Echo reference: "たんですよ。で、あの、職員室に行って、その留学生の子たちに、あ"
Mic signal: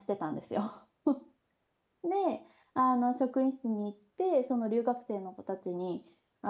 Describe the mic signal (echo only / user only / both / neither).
echo only